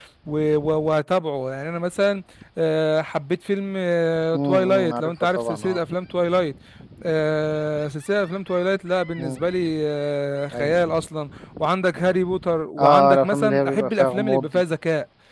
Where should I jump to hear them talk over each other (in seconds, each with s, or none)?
4.4 s